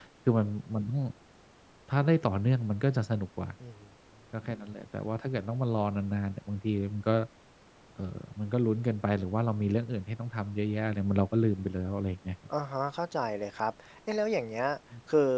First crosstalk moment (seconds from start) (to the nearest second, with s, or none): none